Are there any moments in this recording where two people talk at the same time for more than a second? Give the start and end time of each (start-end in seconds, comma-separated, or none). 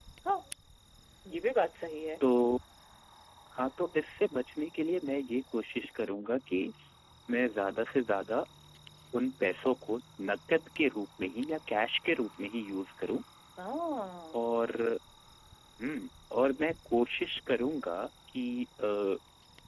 none